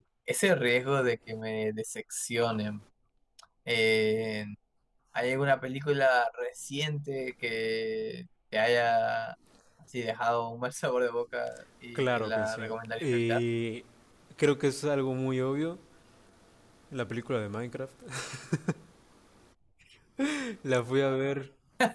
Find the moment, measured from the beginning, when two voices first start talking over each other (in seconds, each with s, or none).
11.9 s